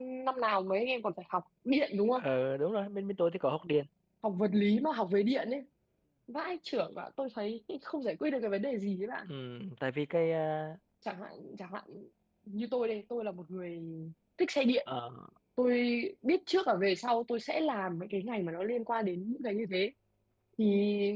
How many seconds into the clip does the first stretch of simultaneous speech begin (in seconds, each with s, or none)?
none